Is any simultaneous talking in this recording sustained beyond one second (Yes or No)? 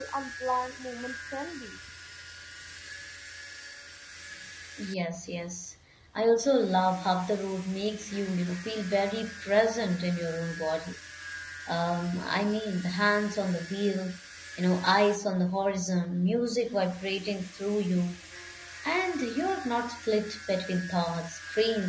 No